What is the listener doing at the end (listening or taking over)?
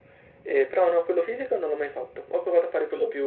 listening